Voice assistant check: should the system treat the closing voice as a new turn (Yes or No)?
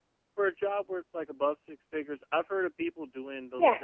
No